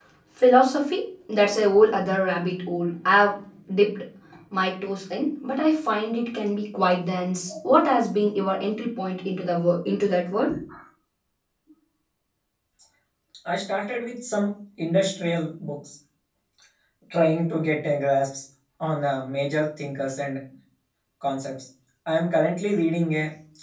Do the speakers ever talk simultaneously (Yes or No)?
No